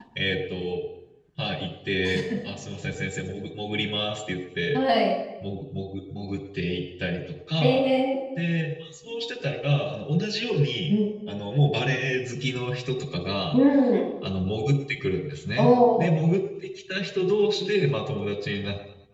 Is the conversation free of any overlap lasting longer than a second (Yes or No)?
Yes